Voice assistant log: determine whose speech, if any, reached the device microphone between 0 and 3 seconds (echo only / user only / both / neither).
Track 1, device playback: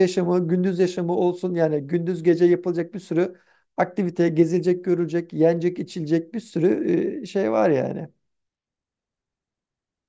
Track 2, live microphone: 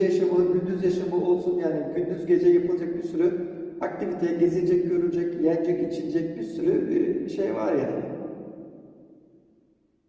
echo only